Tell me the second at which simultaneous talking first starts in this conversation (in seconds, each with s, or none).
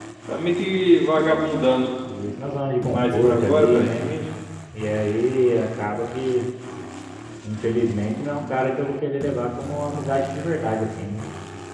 2.9 s